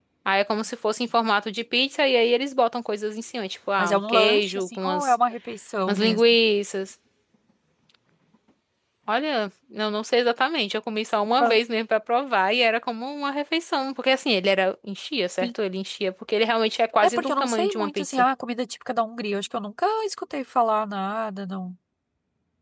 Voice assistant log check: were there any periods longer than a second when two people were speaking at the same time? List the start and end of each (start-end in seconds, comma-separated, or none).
3.8-5.2, 17.0-18.2